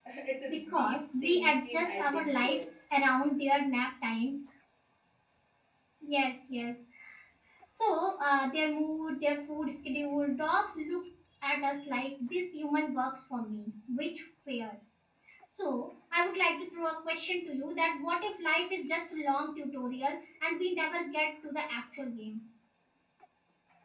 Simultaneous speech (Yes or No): Yes